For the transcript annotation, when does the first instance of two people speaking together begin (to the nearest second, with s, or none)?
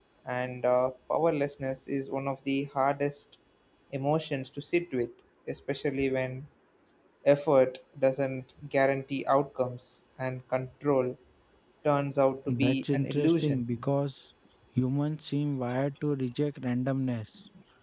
12 s